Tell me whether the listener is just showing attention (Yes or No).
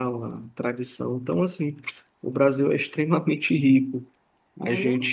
Yes